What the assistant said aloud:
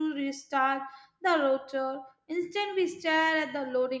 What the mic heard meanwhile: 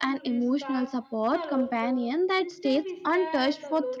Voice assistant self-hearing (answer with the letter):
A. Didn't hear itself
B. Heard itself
B